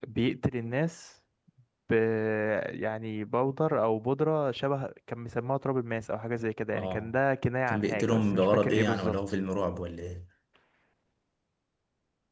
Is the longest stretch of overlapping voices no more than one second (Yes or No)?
No